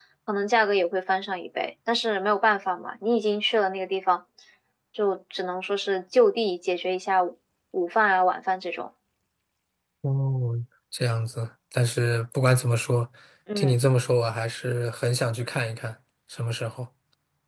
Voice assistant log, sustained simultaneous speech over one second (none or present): none